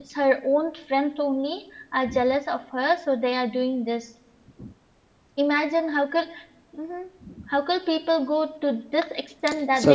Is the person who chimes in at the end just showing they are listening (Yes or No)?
Yes